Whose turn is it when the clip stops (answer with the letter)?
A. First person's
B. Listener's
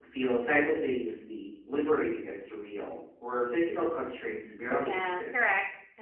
B